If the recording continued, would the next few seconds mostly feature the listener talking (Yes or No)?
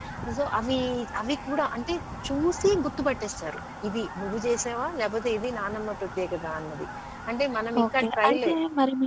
Yes